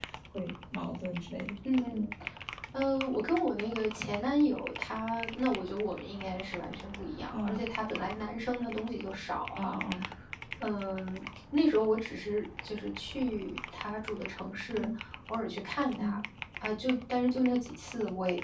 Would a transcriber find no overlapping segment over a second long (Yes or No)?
Yes